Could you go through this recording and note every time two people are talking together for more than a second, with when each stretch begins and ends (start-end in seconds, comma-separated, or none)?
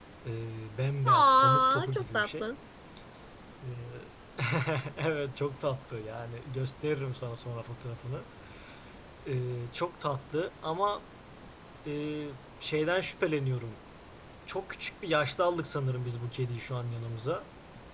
1.0-2.4